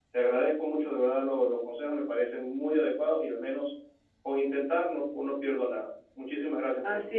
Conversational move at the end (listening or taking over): taking over